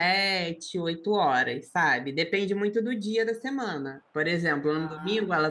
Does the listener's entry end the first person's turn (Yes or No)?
No